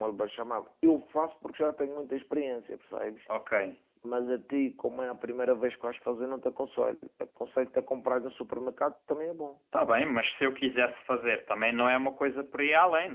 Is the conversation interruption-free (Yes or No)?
Yes